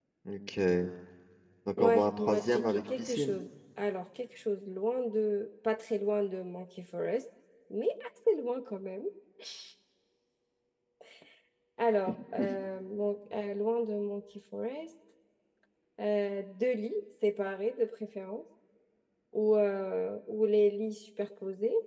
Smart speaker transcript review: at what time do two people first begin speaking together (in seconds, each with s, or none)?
1.8 s